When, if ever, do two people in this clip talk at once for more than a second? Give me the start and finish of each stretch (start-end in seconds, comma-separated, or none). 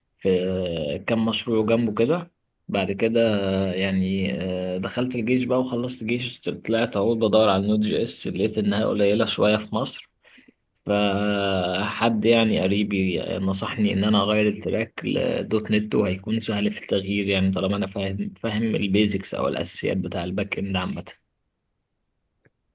none